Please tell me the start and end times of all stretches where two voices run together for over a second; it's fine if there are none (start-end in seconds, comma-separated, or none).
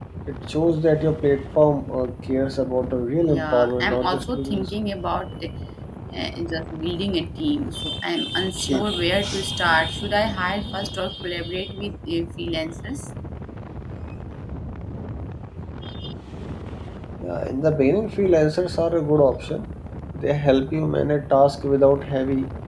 3.3-4.7